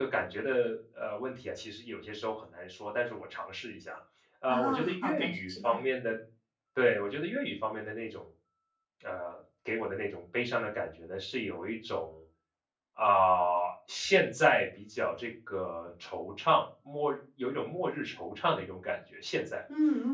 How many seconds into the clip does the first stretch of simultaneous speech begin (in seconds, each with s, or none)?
4.5 s